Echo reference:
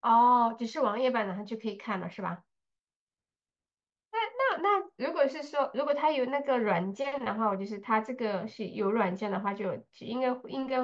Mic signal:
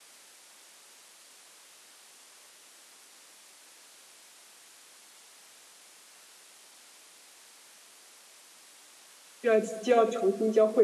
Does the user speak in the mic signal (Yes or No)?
Yes